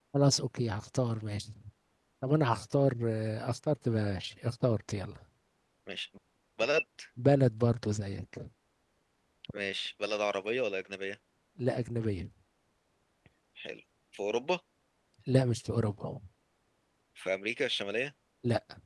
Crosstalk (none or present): none